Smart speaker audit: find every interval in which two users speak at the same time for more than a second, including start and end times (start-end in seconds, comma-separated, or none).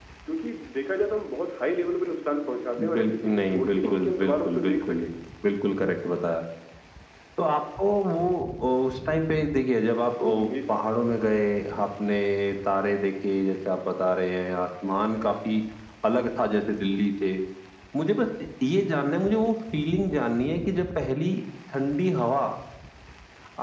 2.9-5.1